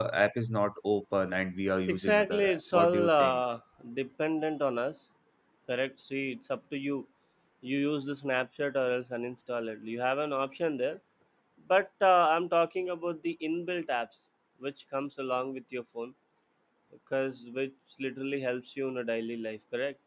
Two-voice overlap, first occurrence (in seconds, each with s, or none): 1.9 s